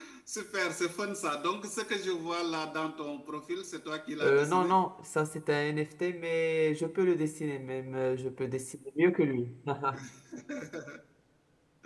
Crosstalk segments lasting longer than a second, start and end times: none

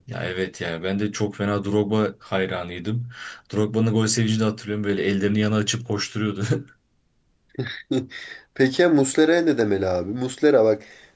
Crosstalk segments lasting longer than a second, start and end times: none

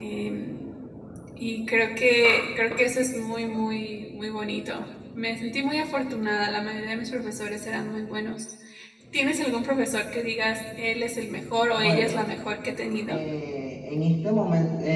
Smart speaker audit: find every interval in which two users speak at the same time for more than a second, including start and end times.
none

